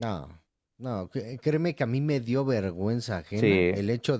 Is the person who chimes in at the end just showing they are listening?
Yes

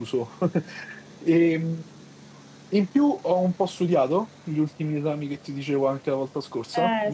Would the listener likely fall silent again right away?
No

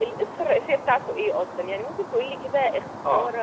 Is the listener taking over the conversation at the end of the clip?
Yes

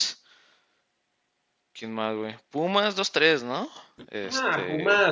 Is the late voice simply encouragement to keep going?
No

